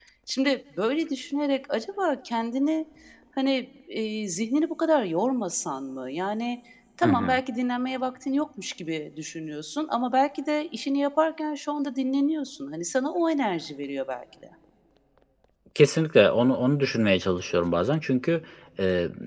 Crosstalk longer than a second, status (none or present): none